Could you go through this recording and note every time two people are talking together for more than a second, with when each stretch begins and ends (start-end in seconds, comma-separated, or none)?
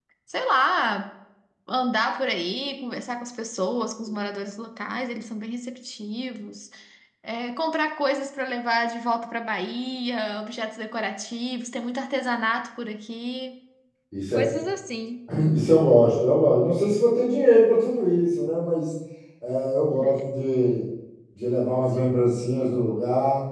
none